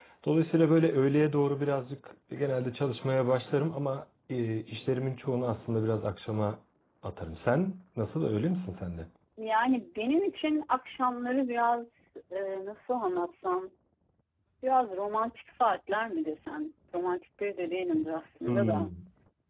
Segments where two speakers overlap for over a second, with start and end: none

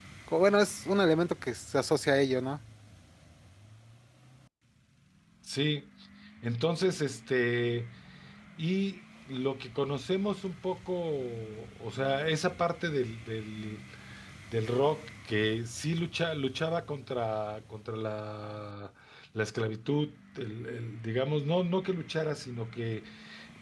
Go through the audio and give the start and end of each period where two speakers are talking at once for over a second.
none

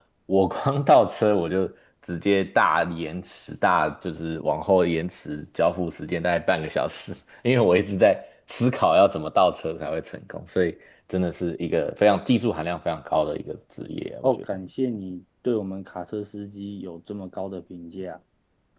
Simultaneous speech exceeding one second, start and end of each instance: none

